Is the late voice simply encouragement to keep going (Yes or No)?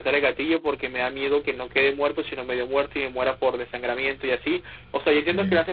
Yes